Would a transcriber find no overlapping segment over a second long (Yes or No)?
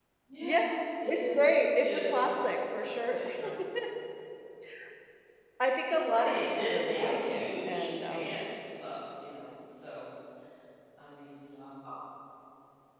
No